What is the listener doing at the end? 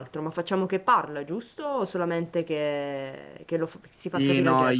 taking over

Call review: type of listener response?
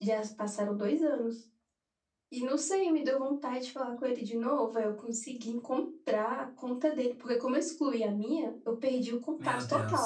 listening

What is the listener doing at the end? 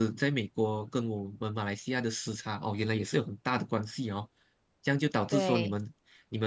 listening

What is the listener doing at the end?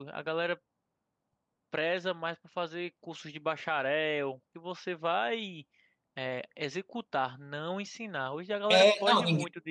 taking over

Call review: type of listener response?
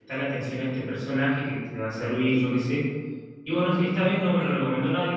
listening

